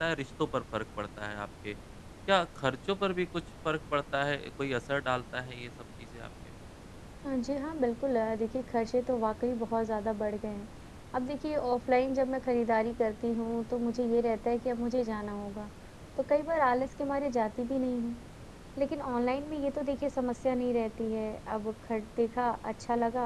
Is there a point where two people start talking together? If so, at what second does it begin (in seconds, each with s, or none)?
none